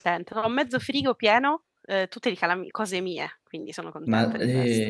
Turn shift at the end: Yes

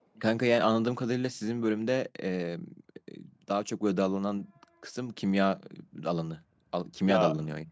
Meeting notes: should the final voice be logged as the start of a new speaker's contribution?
Yes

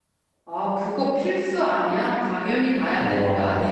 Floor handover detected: No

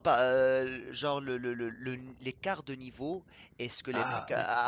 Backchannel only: Yes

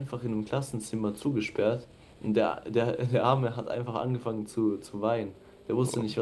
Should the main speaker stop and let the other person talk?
No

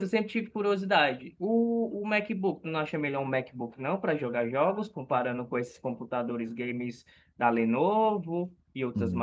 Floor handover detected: Yes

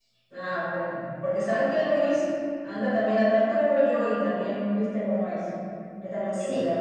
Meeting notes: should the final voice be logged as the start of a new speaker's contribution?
Yes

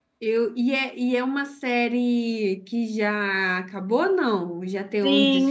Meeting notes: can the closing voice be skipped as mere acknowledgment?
No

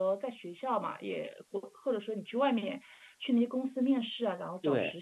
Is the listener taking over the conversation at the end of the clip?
Yes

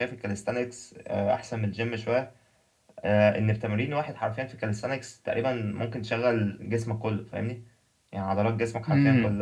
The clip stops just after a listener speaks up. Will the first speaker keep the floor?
Yes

